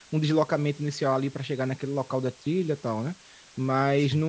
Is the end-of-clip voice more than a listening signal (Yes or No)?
No